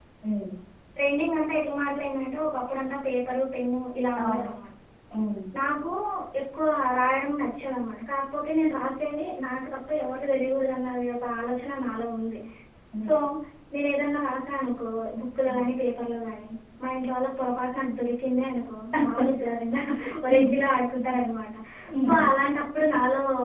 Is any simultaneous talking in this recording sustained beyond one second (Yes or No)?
No